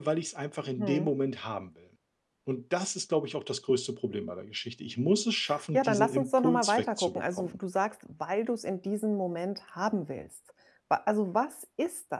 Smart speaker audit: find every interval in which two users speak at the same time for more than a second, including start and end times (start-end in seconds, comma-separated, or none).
5.7-7.5